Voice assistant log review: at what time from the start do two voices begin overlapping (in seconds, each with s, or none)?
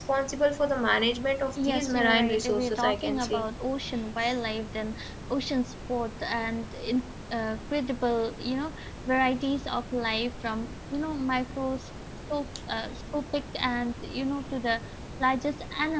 1.6 s